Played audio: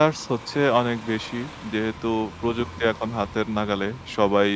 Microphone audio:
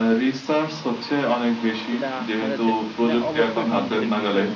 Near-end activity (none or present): present